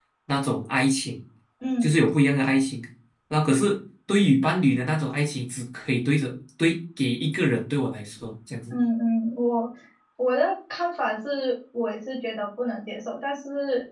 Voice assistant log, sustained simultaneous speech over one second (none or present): none